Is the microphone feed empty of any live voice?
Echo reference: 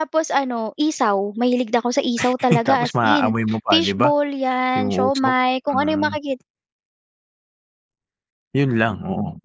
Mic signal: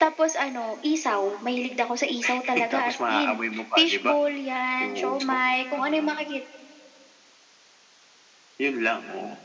Yes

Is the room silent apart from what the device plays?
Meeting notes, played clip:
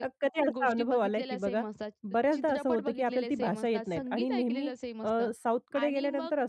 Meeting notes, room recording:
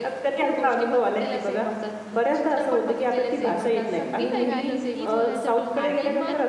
No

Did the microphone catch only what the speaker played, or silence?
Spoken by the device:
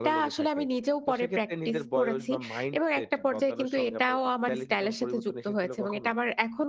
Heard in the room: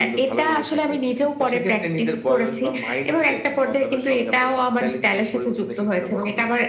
Yes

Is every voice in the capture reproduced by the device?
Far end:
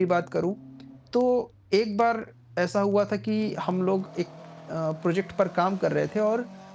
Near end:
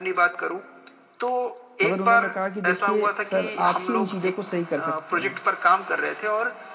No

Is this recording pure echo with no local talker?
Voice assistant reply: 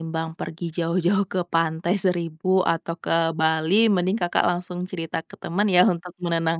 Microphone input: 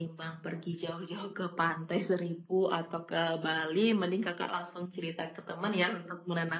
Yes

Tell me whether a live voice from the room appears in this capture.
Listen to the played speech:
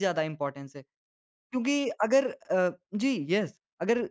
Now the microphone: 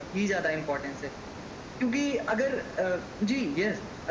No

